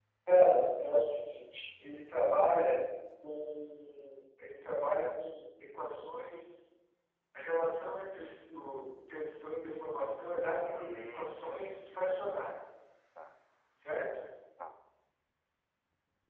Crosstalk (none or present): present